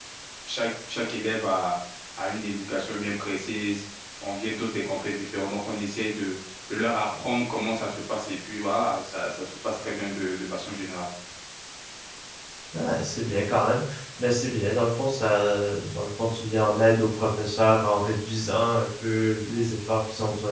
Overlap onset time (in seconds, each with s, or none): none